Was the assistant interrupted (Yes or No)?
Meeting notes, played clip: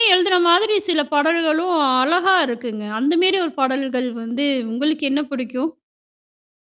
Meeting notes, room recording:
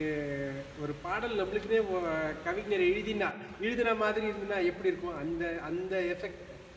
Yes